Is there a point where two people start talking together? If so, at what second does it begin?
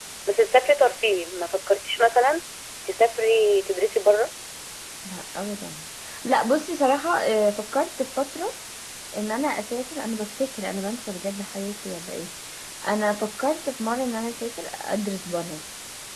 none

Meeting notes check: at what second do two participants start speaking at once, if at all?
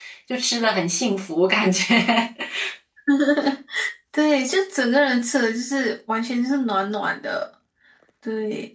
none

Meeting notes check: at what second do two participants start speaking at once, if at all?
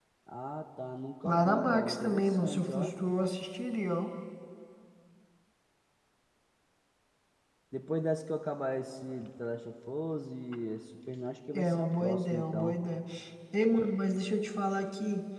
1 s

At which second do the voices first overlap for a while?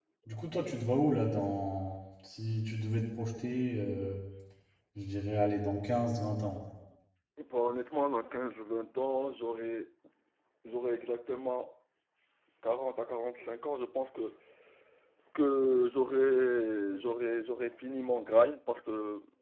none

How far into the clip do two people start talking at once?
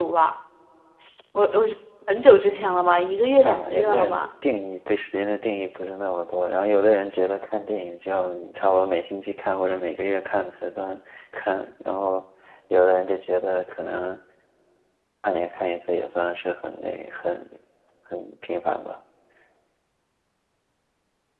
2 s

